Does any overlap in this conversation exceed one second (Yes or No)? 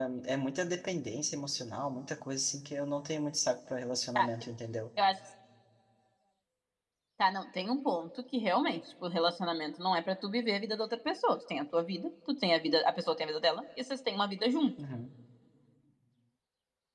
No